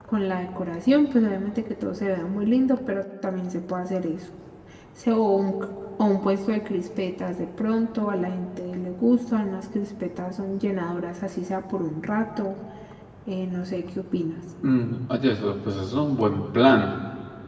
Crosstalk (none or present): none